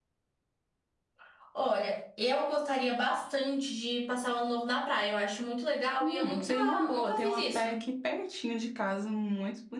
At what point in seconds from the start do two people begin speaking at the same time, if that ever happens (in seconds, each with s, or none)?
6.0 s